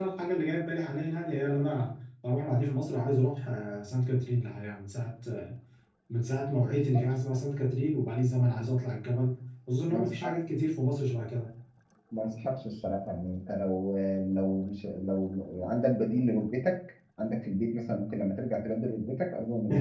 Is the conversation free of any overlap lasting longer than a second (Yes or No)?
Yes